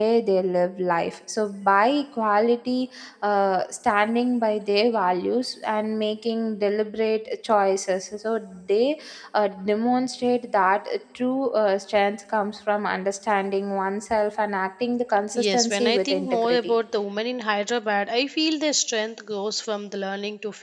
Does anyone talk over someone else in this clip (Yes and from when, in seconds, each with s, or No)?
Yes, from 15.3 s